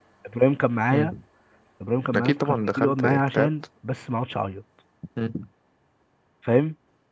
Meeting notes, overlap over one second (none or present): present